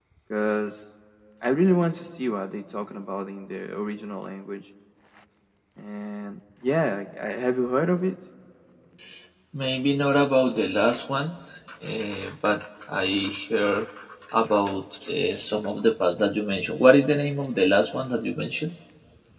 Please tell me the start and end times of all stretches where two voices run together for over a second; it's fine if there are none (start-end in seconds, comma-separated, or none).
none